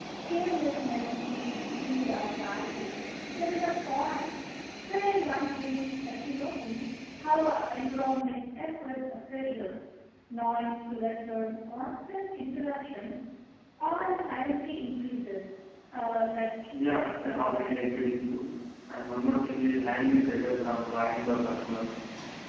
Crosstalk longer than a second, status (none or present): present